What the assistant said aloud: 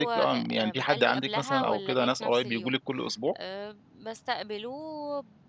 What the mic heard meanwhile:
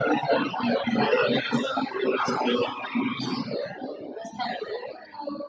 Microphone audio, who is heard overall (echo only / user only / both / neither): echo only